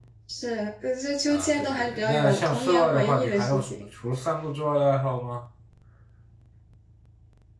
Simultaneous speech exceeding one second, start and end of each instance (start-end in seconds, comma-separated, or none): 1.3-3.8